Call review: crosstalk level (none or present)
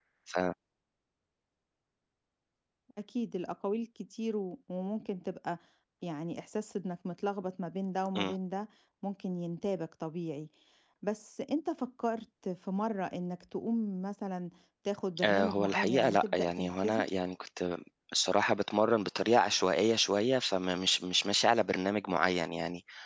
present